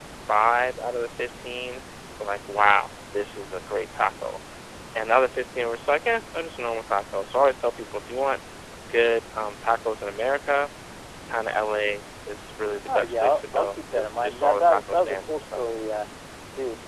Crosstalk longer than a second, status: present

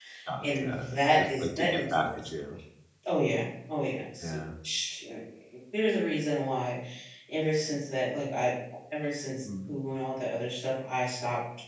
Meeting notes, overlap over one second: present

